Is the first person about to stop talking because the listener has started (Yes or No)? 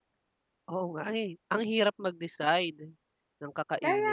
Yes